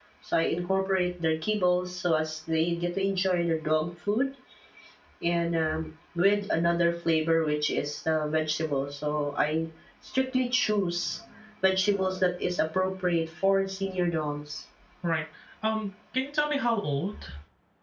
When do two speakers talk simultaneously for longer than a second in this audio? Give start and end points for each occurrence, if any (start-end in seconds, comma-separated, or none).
none